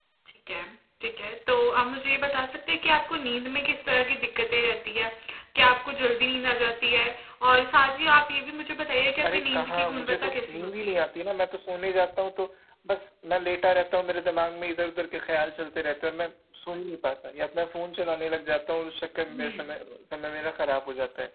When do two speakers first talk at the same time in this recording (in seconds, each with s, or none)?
9.2 s